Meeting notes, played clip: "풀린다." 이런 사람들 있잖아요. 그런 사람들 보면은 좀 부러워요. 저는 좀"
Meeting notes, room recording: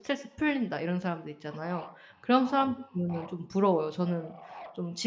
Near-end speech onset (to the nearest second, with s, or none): none